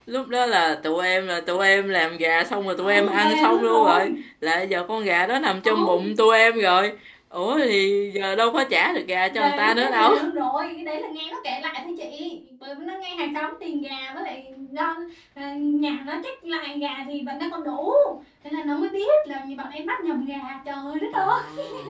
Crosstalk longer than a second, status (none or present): present